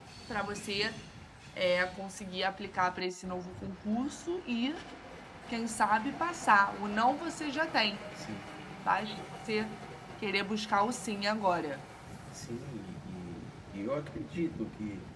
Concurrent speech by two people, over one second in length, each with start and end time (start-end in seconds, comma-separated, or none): none